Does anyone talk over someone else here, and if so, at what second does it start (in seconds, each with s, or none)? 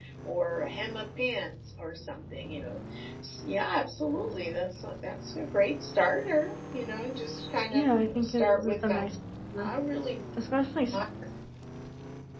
7.7 s